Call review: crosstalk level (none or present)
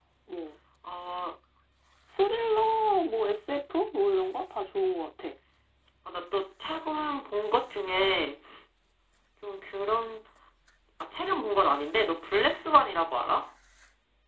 none